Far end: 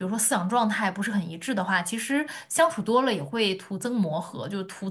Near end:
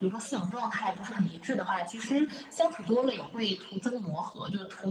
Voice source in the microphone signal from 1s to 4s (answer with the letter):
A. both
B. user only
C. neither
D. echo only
D